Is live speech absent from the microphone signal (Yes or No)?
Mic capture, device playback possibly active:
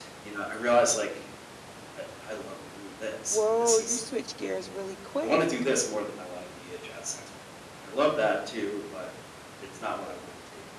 No